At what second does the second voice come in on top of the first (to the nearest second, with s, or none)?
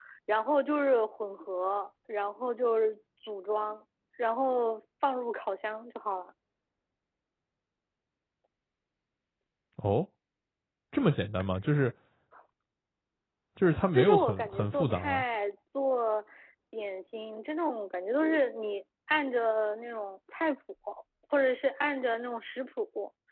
14 s